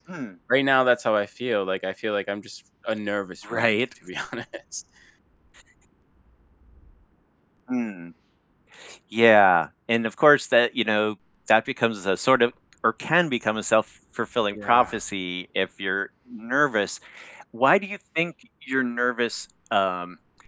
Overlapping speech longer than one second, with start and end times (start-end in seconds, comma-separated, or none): none